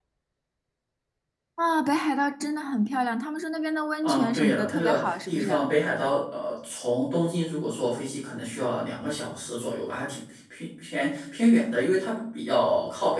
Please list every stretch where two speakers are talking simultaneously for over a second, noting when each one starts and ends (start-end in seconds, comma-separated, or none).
4.0-5.6